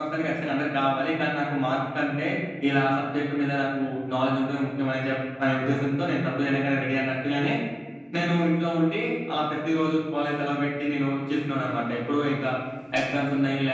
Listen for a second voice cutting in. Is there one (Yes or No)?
No